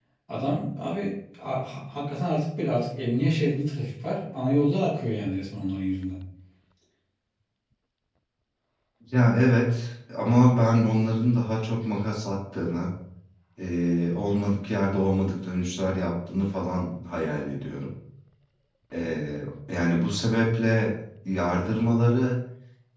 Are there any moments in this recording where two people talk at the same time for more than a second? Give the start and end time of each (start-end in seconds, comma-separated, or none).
none